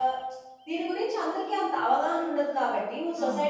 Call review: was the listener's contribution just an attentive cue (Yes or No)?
Yes